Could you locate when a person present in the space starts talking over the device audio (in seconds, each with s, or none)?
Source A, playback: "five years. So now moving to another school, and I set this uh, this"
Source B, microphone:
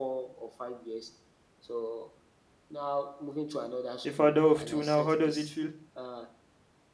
4.0 s